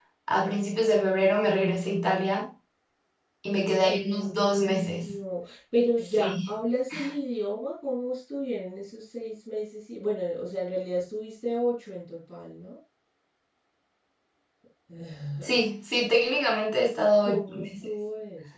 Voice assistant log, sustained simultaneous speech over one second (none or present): present